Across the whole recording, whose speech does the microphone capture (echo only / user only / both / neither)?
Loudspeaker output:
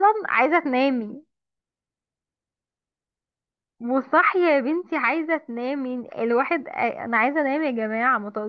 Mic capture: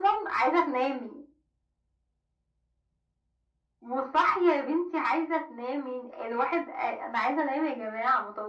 echo only